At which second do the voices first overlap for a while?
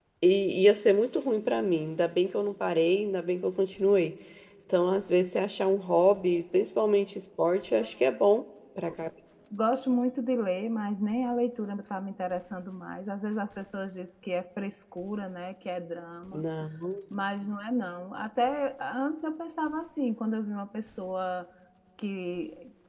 none

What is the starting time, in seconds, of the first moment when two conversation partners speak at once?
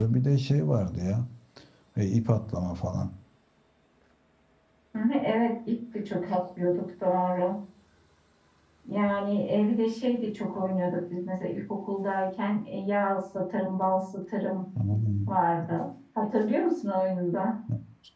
none

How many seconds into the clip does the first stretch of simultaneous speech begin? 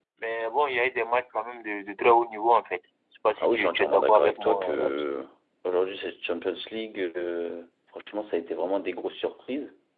3.4 s

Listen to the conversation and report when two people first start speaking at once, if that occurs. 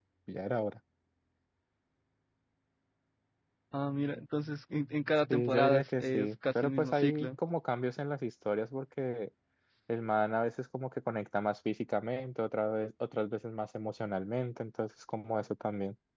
5.3 s

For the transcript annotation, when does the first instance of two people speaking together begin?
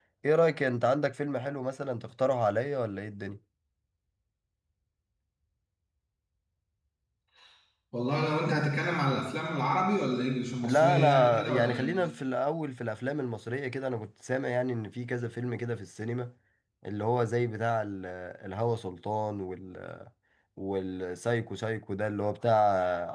10.6 s

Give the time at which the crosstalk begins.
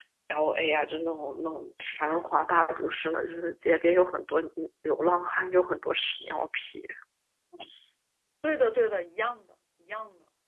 none

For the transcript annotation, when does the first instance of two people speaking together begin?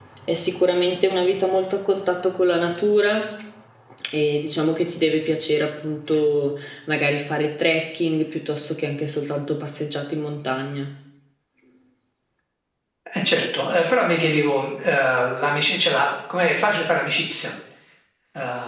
none

